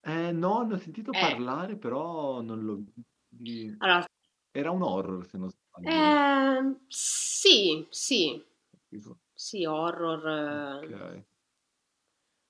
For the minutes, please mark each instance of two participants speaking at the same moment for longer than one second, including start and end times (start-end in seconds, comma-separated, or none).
none